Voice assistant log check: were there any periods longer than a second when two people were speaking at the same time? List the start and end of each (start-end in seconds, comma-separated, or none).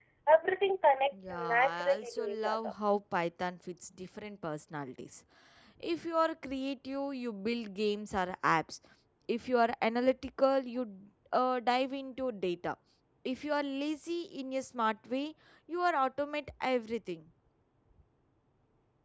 1.1-2.7